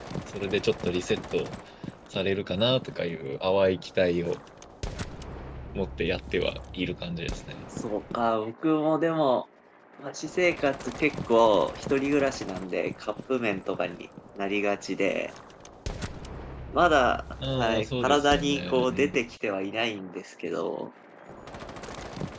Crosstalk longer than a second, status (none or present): present